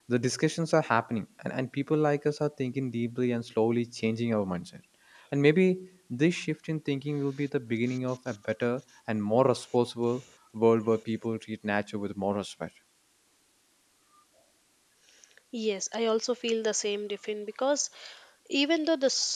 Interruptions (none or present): none